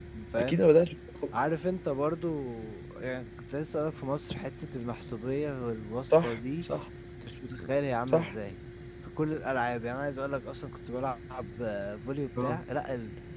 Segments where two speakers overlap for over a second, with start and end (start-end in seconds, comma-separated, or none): none